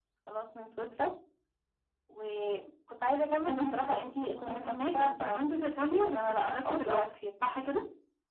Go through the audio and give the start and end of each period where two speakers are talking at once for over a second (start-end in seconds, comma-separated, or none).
3.5-5.1, 5.8-7.1